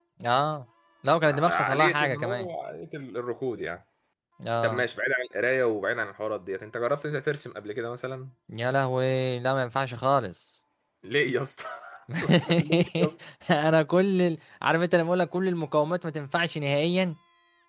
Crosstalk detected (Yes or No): Yes